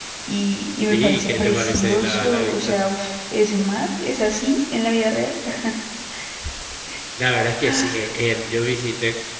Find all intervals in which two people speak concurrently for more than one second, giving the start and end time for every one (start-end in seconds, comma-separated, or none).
0.8-2.8